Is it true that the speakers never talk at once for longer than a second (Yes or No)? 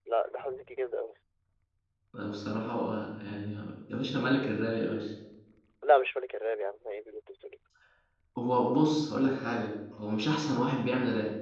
Yes